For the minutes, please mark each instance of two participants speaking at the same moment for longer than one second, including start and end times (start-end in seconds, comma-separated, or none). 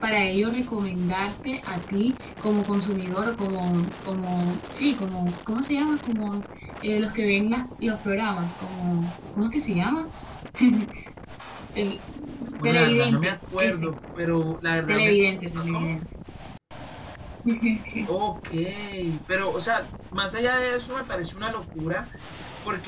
12.6-13.9